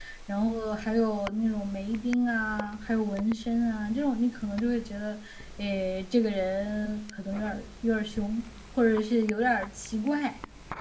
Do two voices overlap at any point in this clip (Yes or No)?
No